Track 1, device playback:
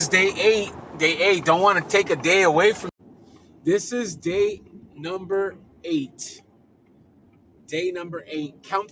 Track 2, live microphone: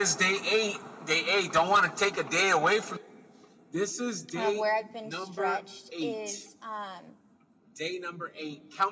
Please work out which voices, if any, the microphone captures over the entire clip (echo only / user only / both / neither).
both